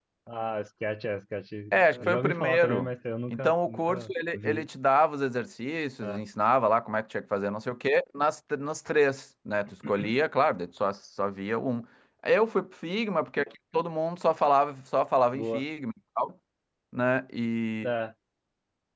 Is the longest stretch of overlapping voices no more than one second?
No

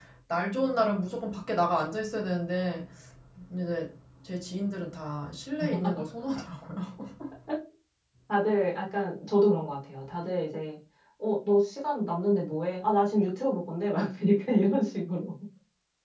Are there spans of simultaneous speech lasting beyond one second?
No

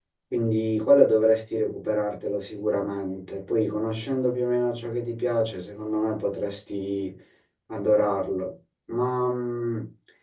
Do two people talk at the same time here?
No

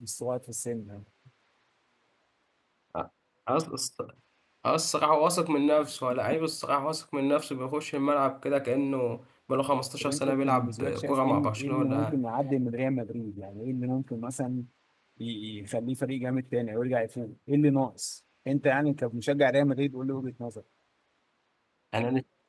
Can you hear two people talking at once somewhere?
Yes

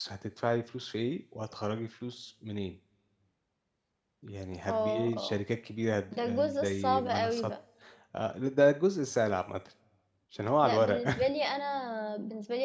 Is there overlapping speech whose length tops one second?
Yes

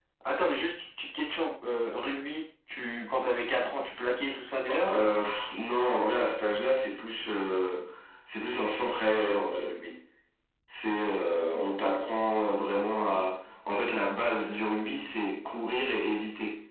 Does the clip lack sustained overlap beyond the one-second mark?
Yes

